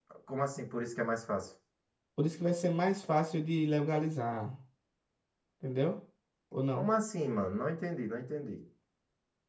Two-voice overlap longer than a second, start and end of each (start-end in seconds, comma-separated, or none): none